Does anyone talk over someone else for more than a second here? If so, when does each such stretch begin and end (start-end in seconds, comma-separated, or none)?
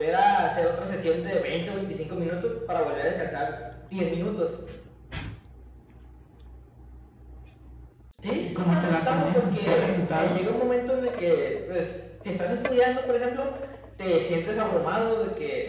8.4-10.4